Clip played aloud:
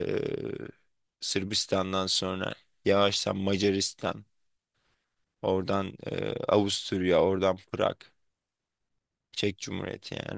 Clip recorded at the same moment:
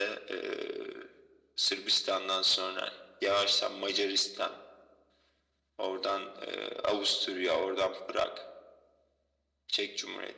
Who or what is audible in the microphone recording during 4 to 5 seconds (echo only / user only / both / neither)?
echo only